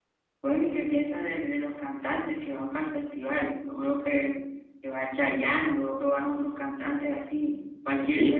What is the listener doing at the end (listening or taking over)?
taking over